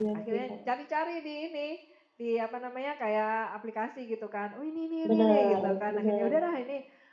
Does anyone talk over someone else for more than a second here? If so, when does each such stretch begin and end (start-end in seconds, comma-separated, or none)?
5.0-6.3